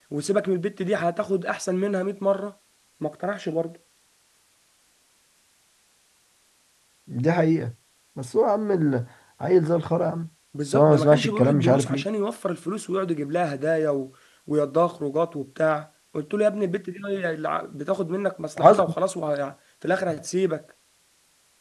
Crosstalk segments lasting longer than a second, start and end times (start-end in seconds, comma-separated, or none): 10.7-12.0